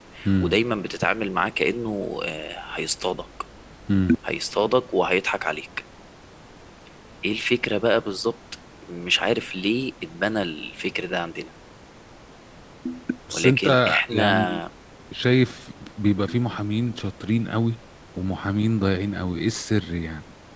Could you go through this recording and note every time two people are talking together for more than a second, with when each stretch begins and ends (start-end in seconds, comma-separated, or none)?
13.3-14.6